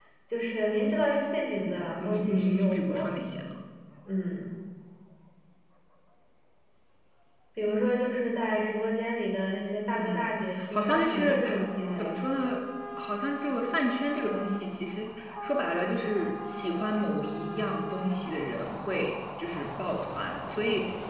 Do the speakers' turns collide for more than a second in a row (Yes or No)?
Yes